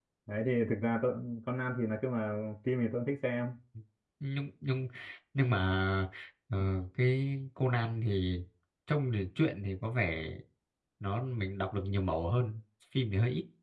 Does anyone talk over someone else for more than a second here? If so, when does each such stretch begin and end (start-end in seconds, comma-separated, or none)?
none